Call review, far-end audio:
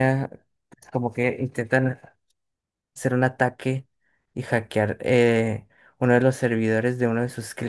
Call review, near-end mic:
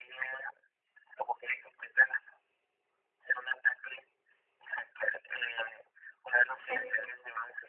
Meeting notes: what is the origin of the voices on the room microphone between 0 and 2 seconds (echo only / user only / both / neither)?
echo only